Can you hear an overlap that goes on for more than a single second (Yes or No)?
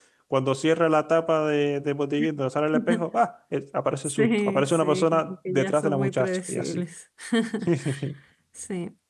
Yes